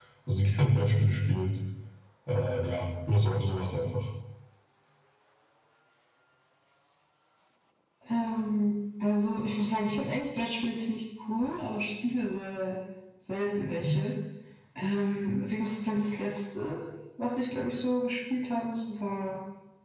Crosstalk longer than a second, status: none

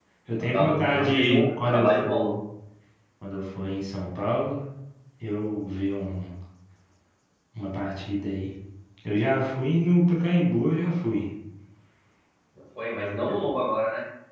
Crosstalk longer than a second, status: present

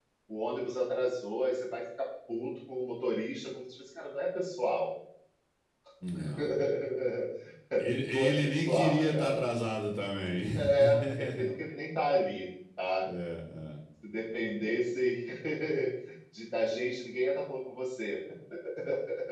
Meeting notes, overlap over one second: present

